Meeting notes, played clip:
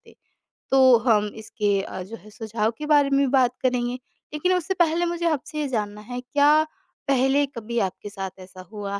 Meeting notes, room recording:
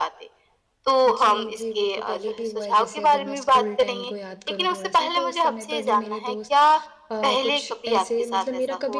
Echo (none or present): present